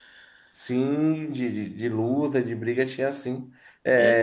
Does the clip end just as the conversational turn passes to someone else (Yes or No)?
No